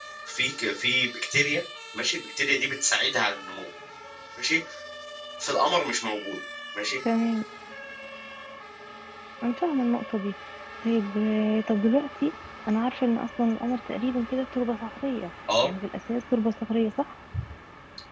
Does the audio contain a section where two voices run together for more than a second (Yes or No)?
No